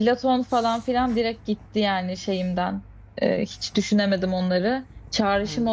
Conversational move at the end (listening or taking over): listening